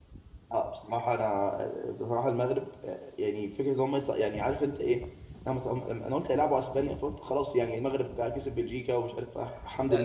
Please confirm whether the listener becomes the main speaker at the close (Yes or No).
Yes